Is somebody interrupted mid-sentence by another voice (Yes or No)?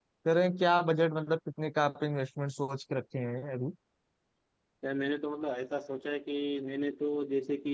No